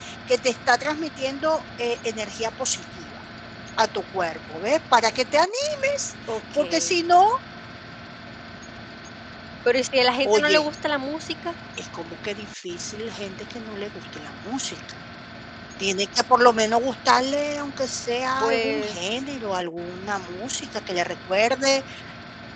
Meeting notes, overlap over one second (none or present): none